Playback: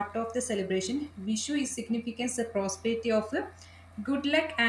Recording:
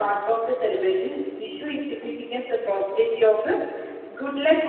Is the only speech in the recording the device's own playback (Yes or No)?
Yes